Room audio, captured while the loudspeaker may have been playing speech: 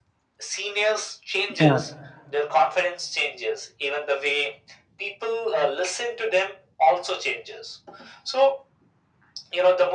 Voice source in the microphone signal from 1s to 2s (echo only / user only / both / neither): both